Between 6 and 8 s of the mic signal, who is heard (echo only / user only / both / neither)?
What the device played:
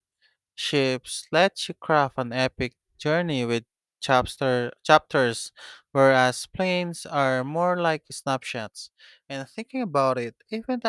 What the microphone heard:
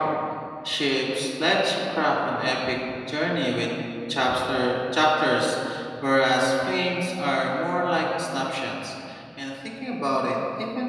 echo only